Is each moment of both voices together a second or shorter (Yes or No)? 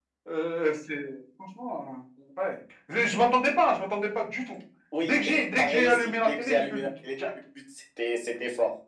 No